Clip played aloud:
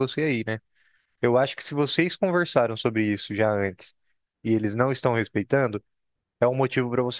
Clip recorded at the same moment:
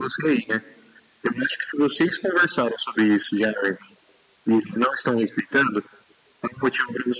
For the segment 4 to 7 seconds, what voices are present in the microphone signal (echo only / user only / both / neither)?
echo only